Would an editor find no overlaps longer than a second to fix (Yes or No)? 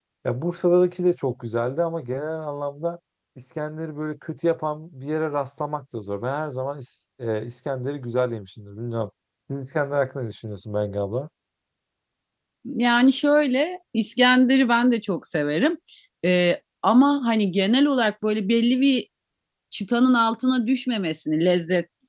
Yes